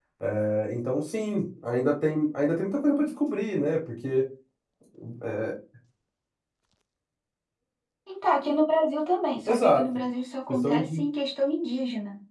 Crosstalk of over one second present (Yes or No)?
No